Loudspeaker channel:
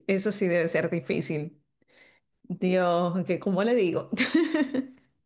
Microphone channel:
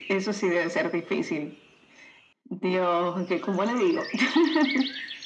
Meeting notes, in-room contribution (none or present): none